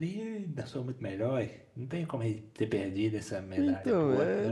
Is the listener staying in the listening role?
No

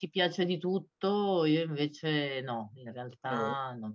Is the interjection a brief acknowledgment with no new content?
Yes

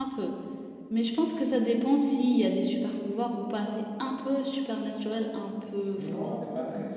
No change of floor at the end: No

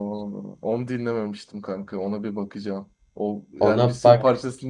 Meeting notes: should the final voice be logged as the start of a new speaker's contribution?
No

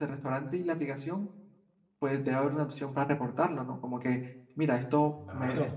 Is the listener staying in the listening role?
Yes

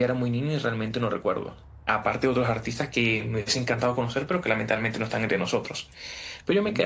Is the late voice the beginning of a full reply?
No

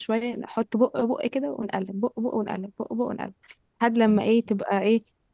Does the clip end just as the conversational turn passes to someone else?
No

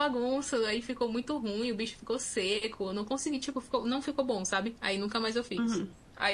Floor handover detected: Yes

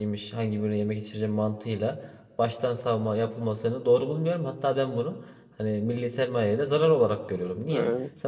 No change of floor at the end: Yes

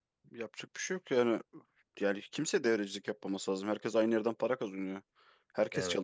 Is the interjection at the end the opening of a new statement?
No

